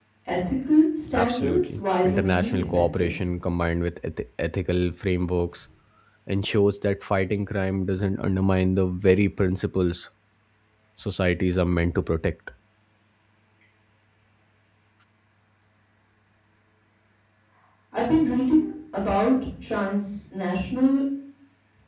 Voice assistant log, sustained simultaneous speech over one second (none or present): present